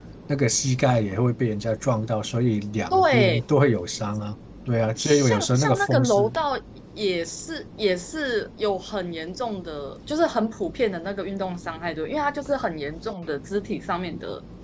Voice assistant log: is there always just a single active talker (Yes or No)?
No